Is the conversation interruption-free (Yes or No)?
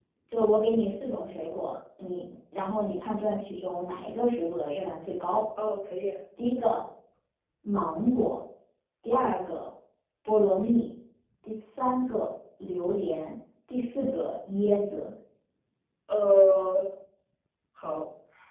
Yes